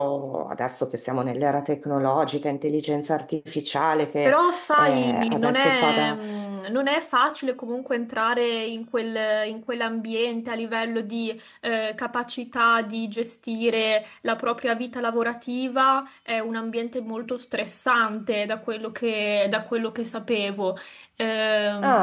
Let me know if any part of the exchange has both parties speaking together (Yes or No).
Yes